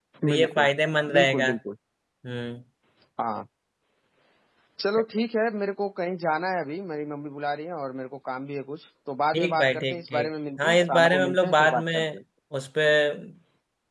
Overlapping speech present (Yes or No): Yes